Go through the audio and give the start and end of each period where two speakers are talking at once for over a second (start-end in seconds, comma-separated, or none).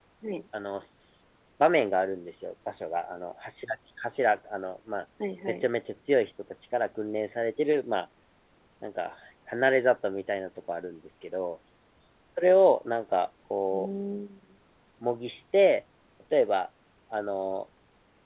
none